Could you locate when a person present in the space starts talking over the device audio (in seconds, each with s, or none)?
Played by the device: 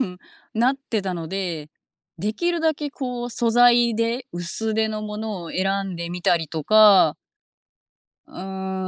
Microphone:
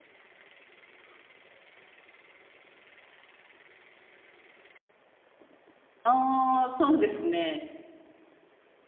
6.0 s